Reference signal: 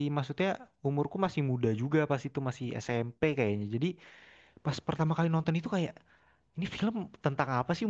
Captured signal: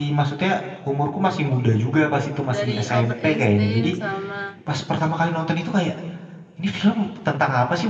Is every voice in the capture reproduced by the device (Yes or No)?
No